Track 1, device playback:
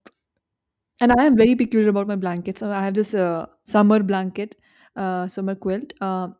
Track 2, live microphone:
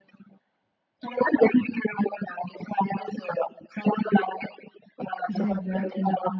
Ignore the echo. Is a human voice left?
Yes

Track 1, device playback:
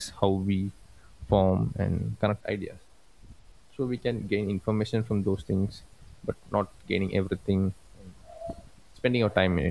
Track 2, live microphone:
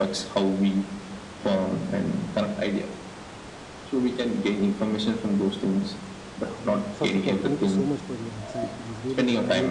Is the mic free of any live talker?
No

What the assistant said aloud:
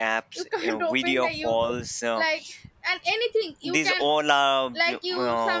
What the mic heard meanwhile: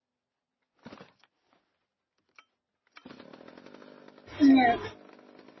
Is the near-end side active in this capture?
Yes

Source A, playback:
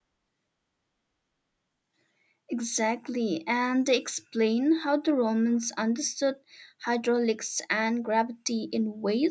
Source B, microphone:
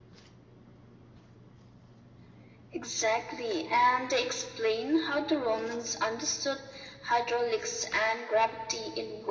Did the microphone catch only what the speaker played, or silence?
Yes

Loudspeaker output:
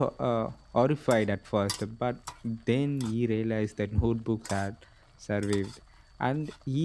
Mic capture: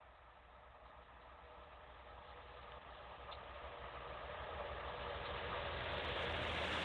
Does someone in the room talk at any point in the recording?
No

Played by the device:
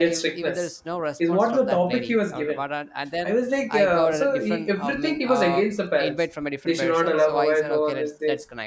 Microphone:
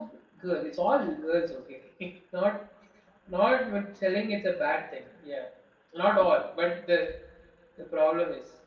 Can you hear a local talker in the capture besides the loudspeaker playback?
Yes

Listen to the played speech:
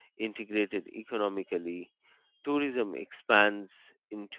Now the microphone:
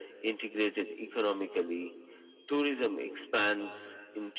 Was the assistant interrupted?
No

